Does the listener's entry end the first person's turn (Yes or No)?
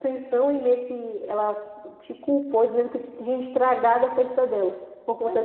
Yes